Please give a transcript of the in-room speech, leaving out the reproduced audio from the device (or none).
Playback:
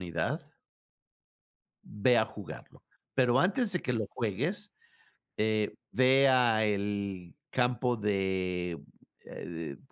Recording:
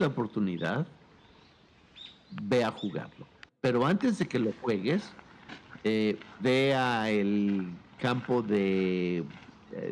none